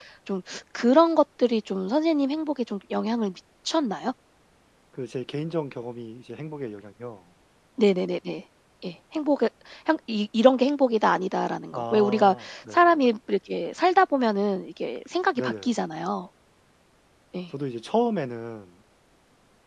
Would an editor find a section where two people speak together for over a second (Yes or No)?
Yes